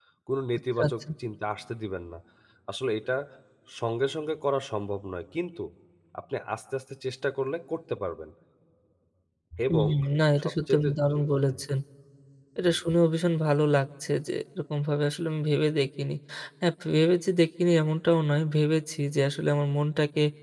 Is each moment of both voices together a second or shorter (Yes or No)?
No